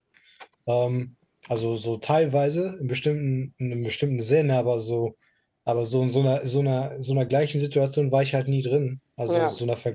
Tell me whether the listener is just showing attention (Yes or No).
Yes